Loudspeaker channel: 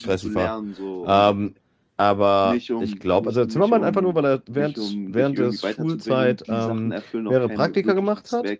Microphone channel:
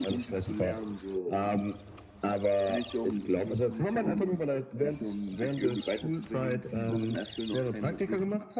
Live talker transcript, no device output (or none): none